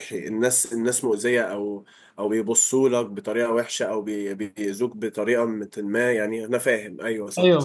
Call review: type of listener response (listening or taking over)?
taking over